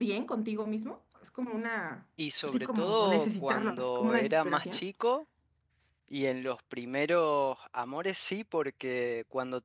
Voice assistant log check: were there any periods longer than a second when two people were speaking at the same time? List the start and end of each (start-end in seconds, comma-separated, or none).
2.4-4.8